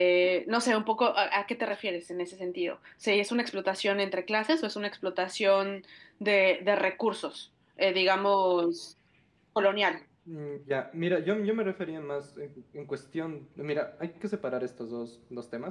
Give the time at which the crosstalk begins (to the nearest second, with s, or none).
none